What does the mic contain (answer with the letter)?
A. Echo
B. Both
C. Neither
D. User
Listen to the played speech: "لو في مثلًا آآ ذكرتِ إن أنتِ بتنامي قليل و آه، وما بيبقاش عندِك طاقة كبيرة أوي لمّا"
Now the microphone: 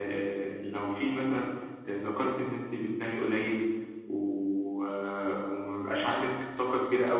A